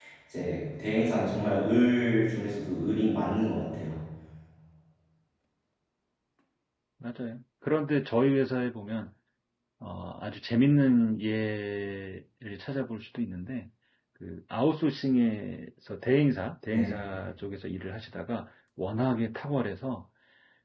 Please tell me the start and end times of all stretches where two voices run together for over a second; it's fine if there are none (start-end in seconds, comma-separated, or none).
none